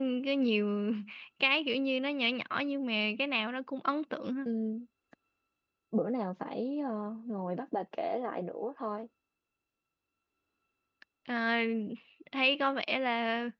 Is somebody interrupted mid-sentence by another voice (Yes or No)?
No